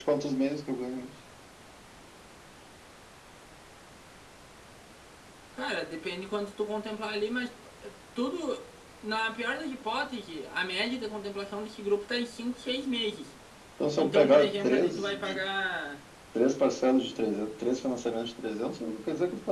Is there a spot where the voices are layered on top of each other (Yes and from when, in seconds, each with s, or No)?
Yes, from 14.0 s